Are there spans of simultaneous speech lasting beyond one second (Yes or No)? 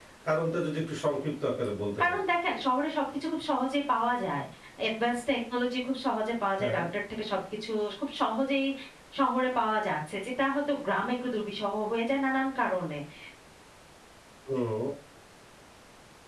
No